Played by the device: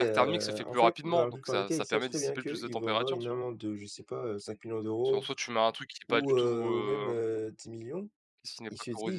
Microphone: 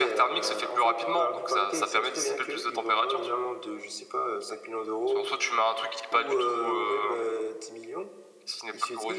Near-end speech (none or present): none